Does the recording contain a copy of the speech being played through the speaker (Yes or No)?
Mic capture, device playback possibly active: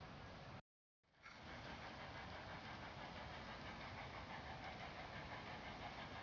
No